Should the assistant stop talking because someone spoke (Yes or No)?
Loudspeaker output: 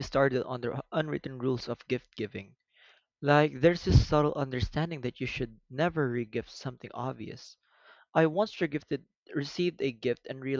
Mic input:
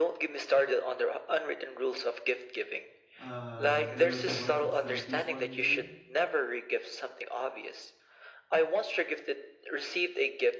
Yes